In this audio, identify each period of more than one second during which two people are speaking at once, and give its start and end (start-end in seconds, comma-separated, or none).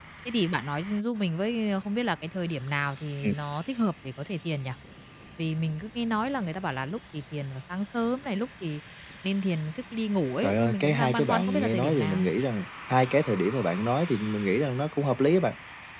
10.4-12.3